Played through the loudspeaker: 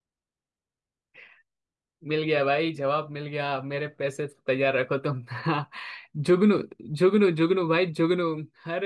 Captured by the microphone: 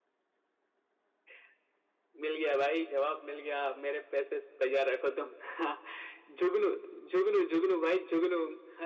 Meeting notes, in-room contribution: none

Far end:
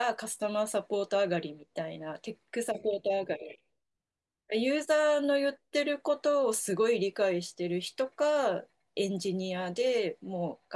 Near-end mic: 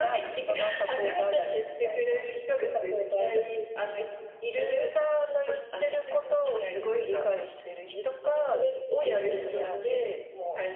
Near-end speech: present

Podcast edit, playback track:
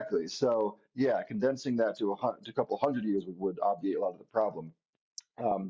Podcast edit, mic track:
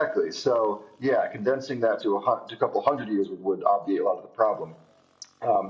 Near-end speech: none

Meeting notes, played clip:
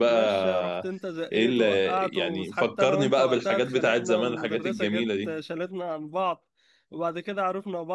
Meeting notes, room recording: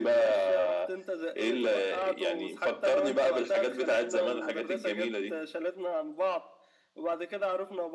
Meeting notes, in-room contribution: none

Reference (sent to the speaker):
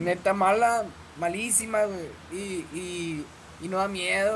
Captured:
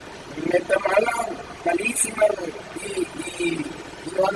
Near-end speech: none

